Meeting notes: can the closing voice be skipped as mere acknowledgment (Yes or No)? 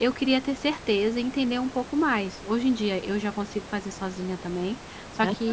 Yes